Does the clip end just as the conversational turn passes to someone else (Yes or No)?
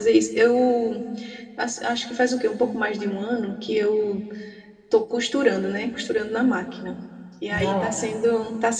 No